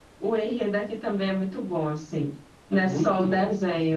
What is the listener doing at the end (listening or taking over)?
taking over